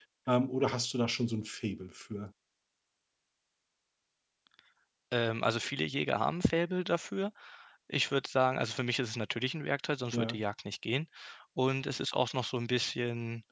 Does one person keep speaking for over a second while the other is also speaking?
No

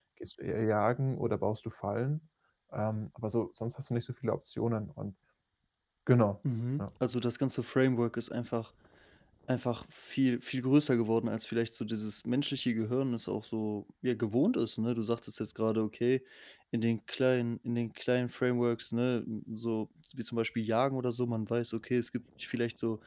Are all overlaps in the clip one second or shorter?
Yes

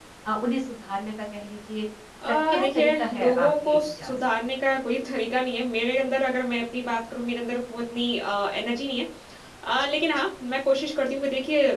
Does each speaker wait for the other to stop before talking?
No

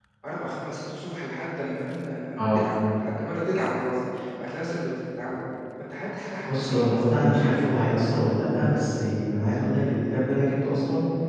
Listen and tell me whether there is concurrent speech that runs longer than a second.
Yes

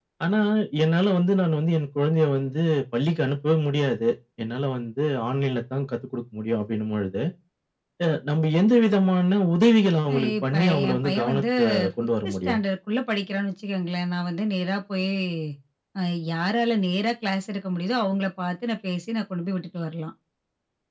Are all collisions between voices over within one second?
No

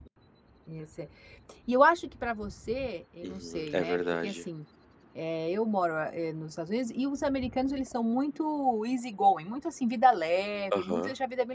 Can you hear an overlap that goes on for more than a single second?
Yes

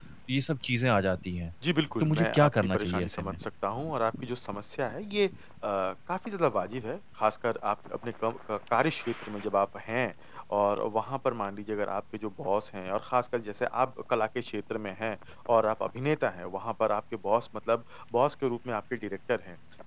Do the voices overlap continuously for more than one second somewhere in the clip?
Yes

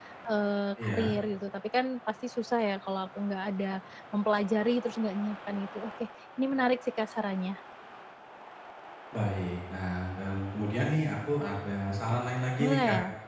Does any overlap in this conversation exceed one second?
No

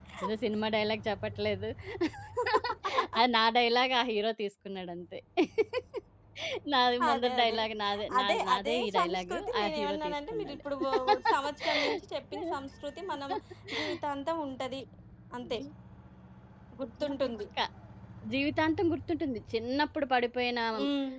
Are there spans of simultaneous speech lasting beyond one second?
Yes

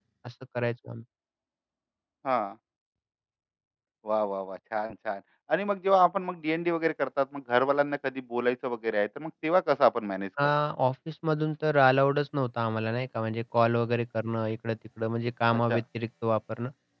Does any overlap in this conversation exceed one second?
No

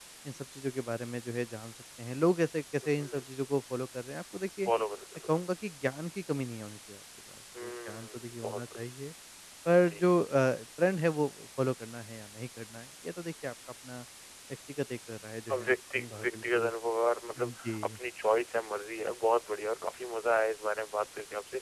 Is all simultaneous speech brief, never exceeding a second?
No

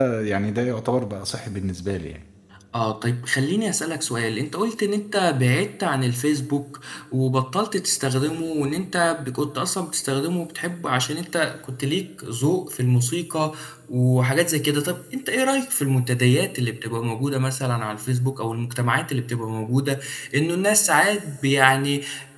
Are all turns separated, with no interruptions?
Yes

